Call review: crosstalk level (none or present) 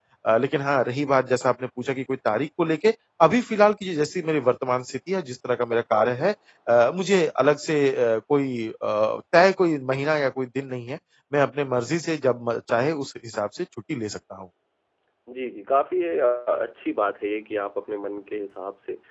none